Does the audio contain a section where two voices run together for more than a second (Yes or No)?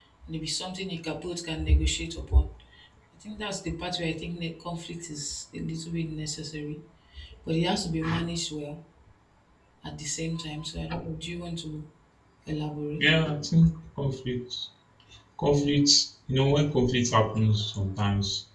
No